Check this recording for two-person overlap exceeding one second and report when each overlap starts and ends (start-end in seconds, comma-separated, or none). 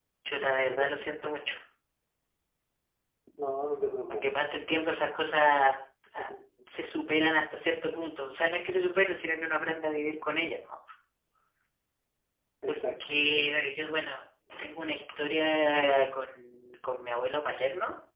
none